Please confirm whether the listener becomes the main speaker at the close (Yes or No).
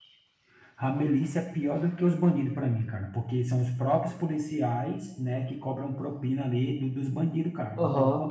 Yes